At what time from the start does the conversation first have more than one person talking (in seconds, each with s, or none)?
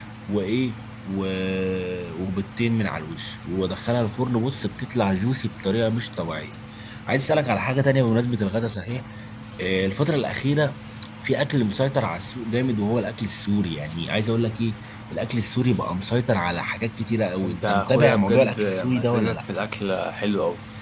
17.4 s